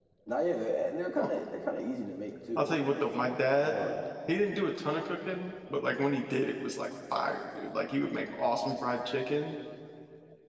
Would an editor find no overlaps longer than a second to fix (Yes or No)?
No